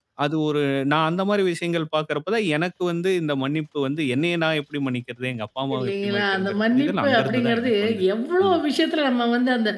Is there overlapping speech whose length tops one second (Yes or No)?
Yes